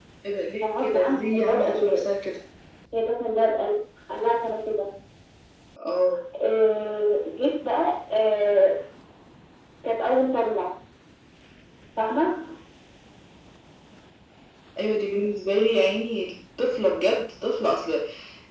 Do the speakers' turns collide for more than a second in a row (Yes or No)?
Yes